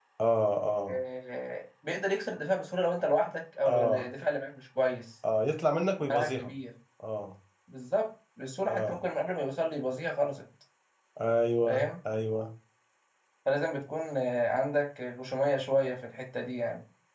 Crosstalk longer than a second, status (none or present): none